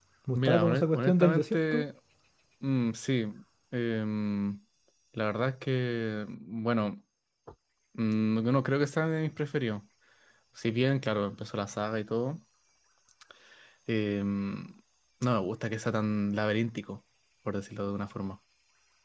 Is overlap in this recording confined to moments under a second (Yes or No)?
No